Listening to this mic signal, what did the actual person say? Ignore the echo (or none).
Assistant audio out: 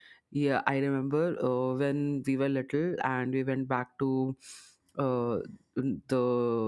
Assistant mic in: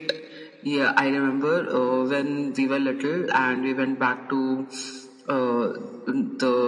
none